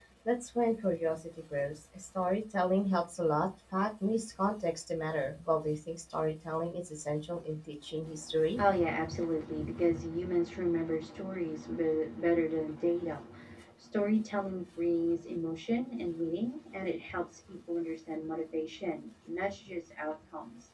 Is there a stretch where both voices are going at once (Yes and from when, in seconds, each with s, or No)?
No